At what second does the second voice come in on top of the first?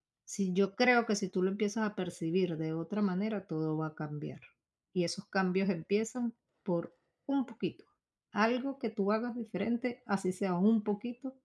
none

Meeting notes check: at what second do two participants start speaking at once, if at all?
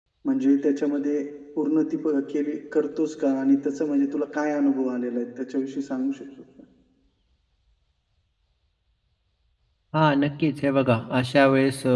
none

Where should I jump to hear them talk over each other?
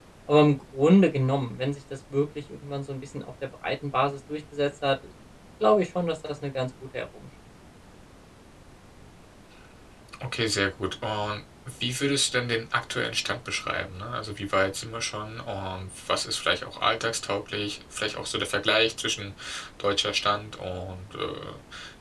none

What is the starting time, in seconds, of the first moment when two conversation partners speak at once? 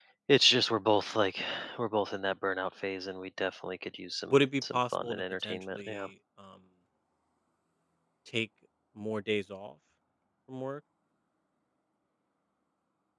4.3 s

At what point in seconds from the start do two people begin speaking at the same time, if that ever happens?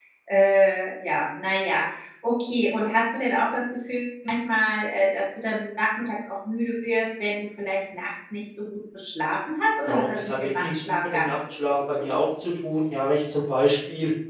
9.9 s

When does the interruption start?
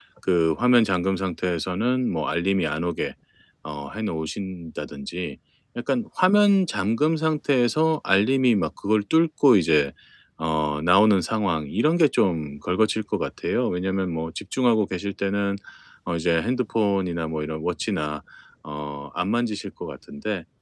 none

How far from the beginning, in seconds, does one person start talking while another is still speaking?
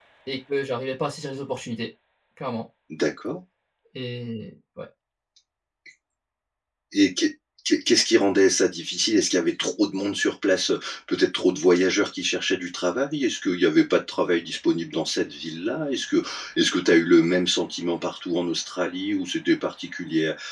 none

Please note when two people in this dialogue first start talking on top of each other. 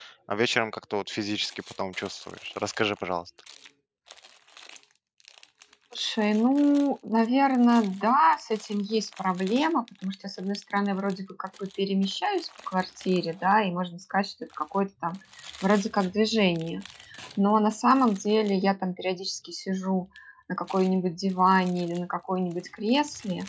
none

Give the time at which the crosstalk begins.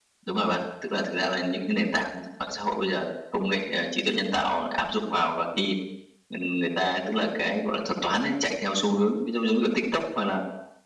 none

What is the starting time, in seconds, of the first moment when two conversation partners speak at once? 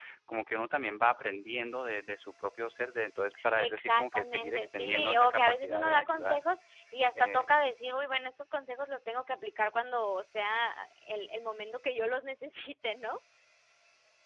3.6 s

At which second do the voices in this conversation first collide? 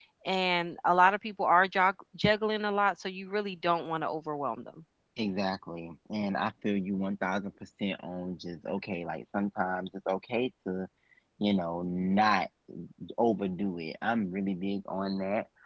none

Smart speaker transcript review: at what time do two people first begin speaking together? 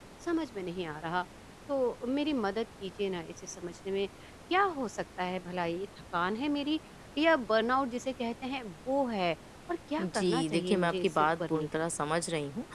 10.0 s

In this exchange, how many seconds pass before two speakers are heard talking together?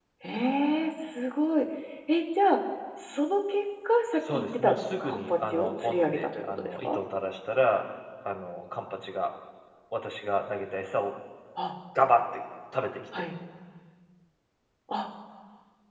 4.2 s

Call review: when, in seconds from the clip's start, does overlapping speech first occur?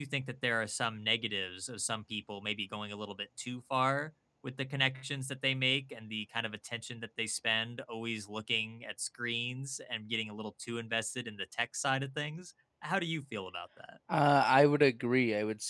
none

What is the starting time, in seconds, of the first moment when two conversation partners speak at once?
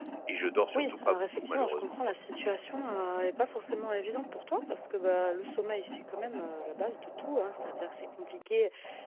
0.7 s

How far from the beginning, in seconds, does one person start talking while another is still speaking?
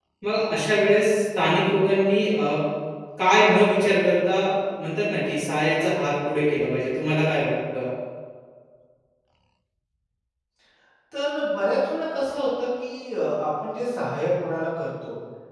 none

